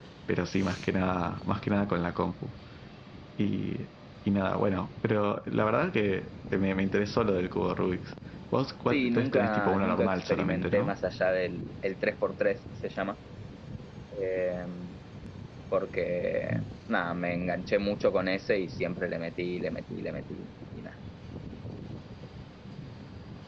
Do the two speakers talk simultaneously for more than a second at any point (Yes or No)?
Yes